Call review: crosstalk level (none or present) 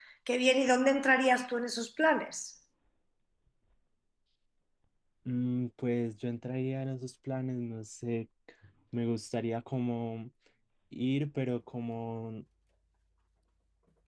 none